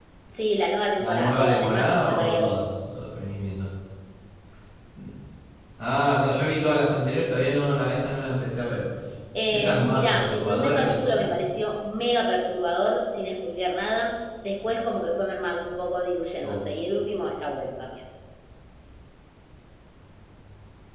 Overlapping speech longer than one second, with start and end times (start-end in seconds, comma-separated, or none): 1.0-2.5, 9.5-11.3